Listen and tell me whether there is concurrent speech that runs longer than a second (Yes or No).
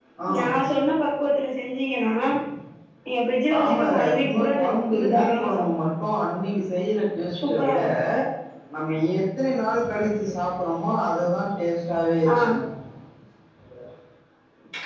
Yes